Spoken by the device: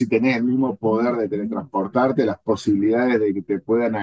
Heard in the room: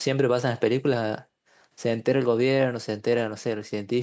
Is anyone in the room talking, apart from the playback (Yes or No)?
Yes